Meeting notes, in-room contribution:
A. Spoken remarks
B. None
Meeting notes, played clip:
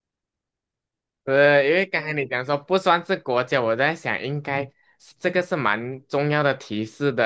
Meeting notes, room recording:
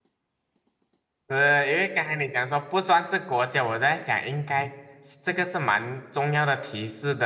B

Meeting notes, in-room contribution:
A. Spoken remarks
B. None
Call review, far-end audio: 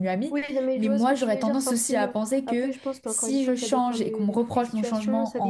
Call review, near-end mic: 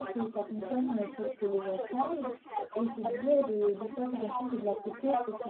A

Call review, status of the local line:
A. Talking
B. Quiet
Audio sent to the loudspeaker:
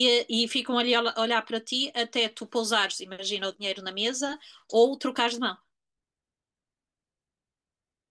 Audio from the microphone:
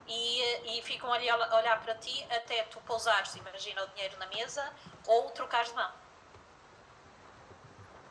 B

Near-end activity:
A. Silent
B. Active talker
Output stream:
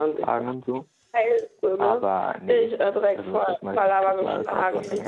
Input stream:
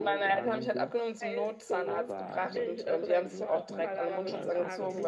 B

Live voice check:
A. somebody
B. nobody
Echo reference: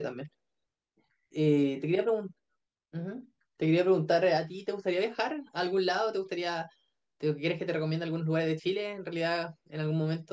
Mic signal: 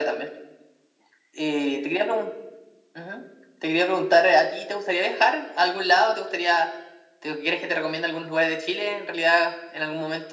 B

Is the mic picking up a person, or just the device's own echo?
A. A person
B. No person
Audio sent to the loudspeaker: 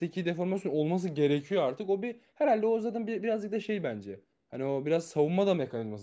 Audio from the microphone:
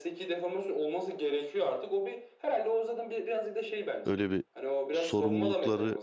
A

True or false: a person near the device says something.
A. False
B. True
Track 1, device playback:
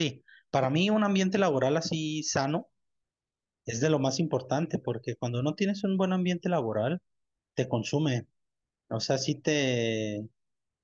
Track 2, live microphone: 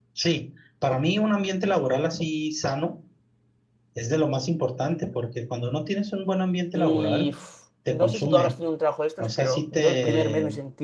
B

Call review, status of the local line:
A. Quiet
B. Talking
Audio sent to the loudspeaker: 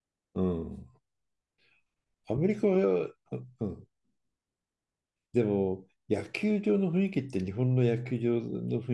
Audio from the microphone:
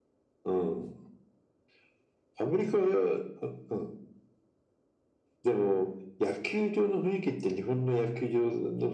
A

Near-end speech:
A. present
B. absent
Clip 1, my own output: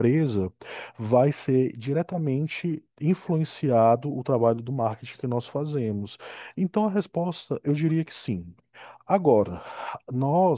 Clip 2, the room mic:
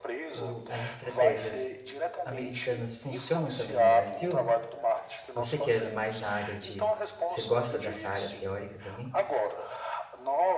A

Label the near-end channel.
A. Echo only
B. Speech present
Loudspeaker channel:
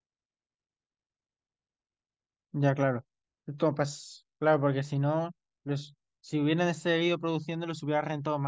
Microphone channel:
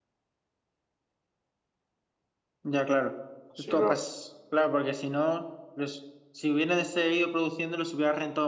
B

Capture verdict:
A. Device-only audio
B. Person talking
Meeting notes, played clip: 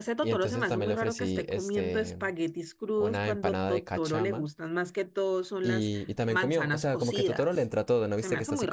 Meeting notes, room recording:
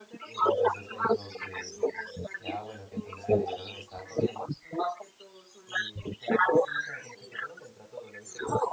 B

